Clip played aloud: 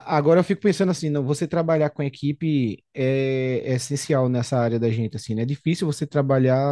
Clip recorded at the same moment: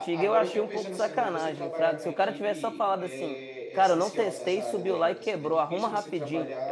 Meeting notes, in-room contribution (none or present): present